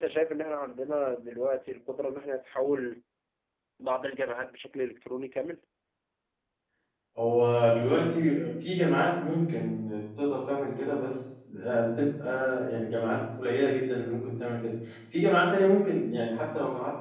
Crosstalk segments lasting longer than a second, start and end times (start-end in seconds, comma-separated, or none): none